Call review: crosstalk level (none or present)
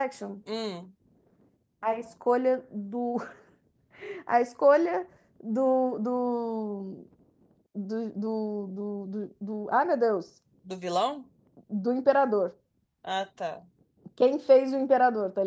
none